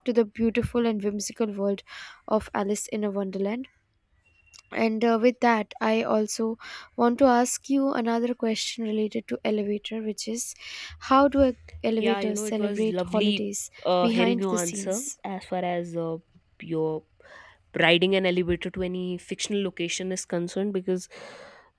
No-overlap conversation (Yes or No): No